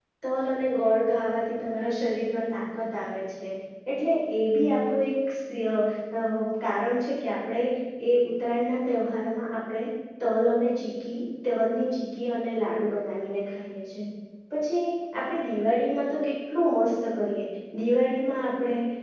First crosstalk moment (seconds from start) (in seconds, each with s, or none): none